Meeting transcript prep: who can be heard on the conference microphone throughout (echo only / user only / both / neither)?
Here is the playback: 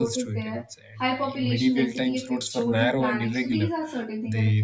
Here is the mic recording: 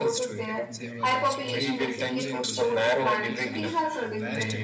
both